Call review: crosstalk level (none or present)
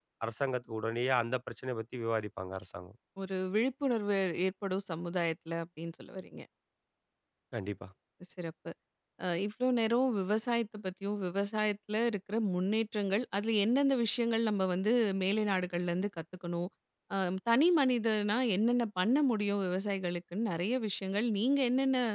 none